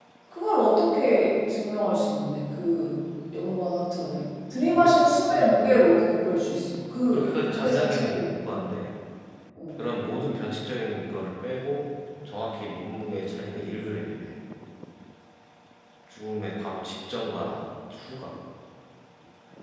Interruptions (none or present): present